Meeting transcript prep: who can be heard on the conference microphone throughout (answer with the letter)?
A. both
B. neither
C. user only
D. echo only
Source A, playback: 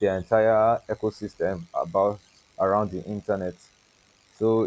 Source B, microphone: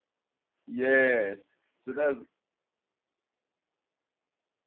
C